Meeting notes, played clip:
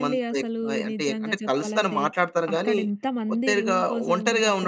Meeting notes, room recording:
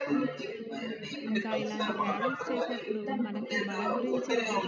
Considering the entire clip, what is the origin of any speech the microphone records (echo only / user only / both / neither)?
both